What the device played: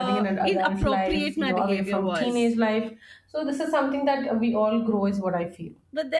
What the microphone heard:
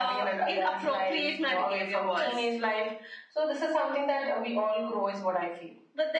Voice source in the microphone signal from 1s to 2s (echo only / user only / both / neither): echo only